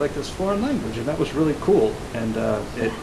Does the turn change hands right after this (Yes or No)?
No